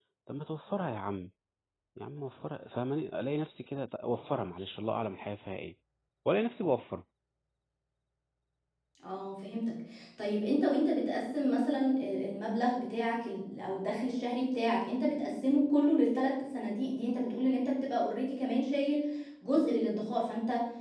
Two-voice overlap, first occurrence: none

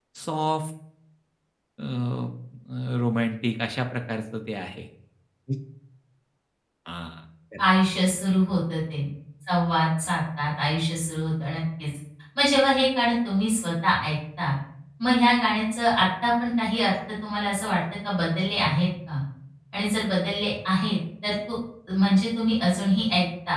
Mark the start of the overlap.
none

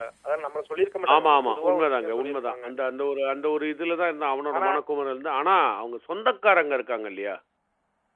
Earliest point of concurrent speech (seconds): 1.1 s

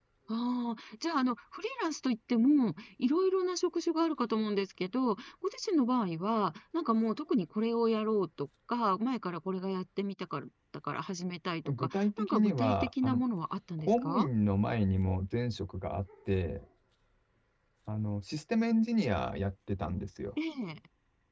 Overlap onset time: 11.6 s

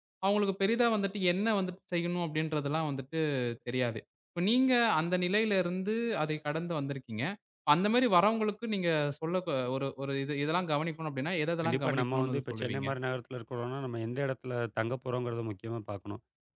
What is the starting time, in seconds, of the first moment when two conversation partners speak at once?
11.6 s

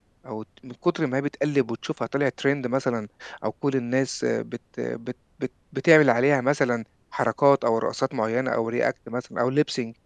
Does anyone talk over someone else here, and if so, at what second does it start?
none

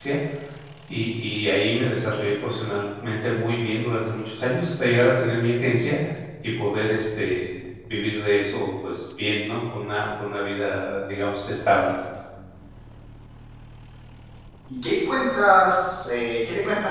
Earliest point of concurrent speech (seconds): none

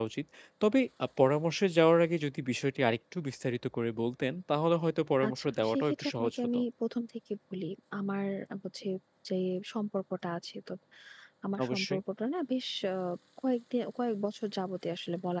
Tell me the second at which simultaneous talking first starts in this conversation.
5.3 s

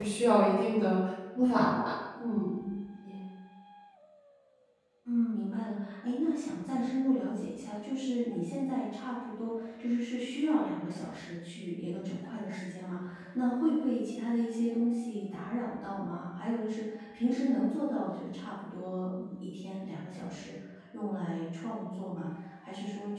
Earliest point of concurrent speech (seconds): none

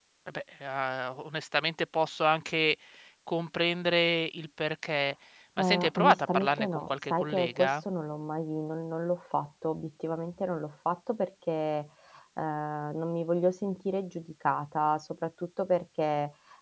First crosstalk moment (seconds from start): 5.6 s

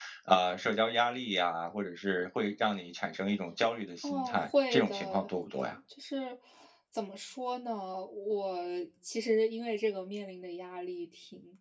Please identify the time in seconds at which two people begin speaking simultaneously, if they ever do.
4.0 s

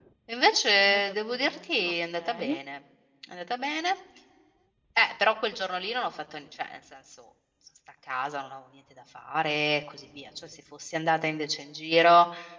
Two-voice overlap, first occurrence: 0.8 s

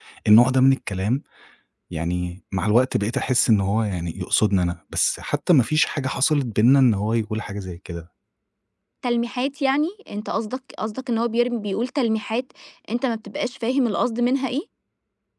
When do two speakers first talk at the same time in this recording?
none

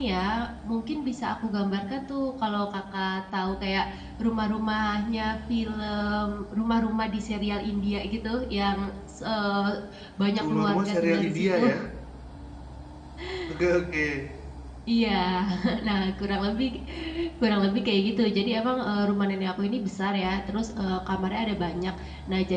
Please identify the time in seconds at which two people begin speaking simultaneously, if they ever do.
10.4 s

